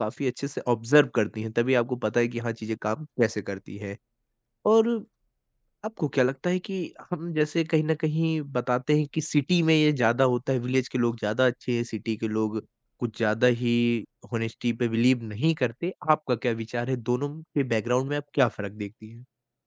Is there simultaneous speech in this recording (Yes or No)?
No